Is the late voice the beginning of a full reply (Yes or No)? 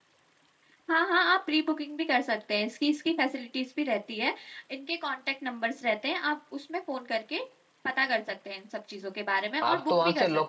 Yes